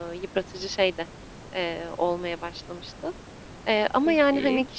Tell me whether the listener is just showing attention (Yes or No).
Yes